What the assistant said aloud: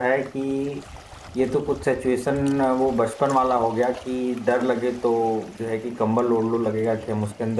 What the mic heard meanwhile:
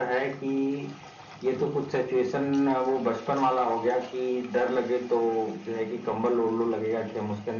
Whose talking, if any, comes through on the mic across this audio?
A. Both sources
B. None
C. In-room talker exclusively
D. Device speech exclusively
D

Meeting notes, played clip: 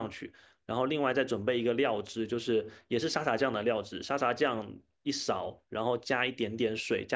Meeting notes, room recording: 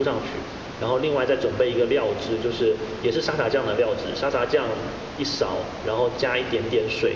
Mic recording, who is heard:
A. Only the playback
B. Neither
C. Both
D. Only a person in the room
A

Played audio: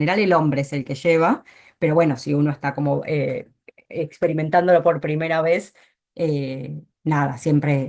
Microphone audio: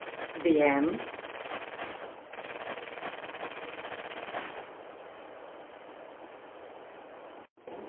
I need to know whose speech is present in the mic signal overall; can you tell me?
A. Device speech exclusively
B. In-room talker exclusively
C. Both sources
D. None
B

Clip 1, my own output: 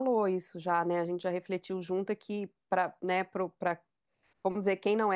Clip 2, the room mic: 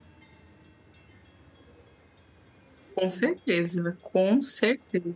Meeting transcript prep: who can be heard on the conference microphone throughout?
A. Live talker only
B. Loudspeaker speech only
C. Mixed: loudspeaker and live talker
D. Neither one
A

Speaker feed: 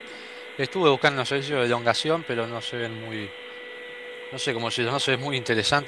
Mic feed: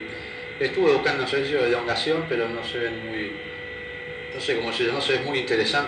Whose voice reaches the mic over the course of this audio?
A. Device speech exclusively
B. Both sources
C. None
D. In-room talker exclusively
A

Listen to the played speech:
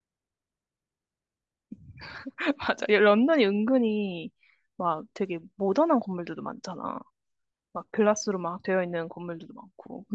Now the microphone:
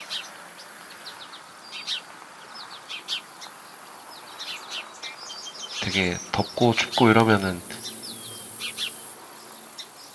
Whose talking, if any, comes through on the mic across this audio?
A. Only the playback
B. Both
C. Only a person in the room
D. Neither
C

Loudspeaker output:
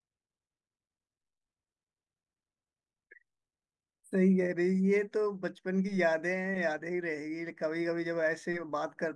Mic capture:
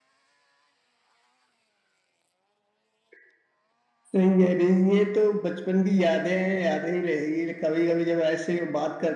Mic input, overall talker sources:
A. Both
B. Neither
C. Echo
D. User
C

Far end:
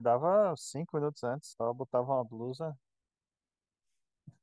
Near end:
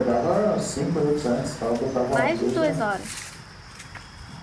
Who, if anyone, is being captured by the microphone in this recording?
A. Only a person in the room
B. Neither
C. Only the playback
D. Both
D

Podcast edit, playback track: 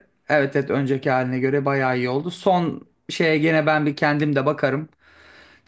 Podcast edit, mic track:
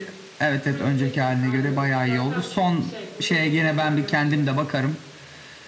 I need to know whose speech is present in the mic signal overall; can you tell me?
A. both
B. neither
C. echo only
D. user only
A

